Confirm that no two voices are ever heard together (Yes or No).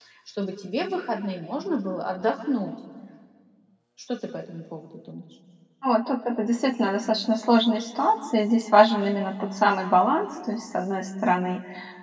Yes